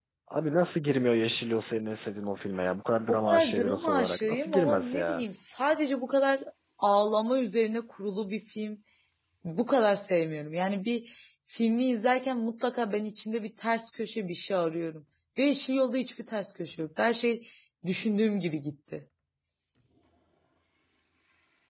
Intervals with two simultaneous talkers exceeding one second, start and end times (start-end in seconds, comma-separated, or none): 3.1-5.2